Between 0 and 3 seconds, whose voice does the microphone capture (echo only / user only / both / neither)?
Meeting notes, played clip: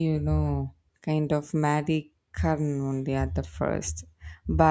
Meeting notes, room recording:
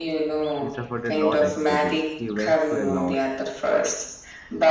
both